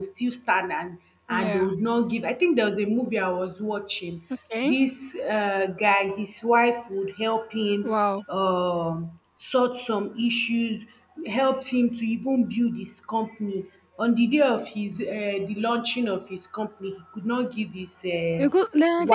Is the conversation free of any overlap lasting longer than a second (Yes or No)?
Yes